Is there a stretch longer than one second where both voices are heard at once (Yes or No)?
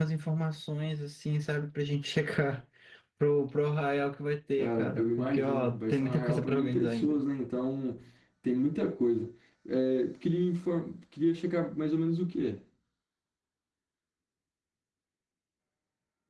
Yes